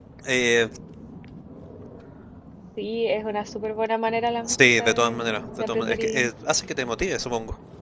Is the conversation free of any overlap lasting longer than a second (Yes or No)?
No